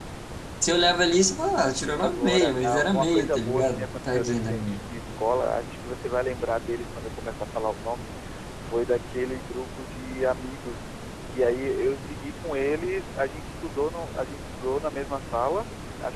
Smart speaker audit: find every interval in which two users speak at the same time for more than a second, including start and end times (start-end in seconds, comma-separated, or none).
2.0-4.8